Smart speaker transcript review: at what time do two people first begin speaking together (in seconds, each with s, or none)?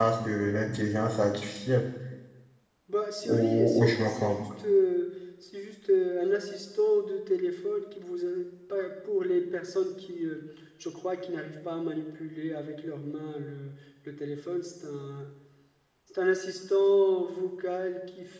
3.2 s